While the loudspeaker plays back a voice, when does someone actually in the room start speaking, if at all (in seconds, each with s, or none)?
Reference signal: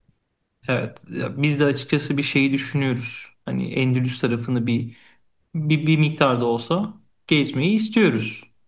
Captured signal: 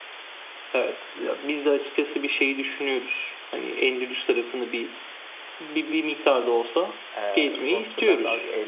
7.2 s